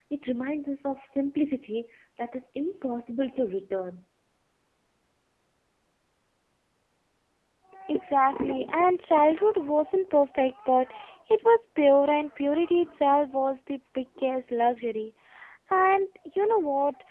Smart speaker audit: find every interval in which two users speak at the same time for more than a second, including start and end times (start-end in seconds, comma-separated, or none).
none